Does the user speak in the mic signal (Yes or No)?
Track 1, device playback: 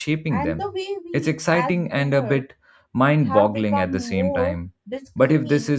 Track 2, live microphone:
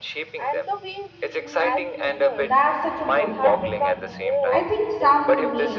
Yes